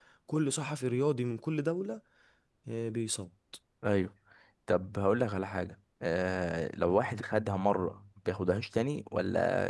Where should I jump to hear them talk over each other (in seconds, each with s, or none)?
none